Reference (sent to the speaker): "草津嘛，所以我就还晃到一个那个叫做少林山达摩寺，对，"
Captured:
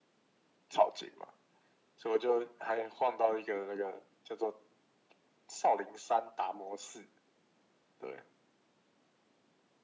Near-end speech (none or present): none